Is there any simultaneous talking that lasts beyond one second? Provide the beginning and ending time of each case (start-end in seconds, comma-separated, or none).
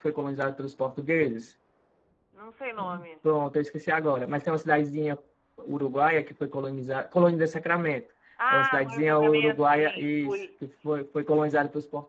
8.5-10.3